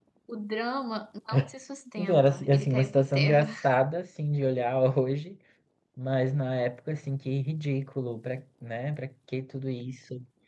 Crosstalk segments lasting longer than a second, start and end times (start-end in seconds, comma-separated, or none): 2.0-3.5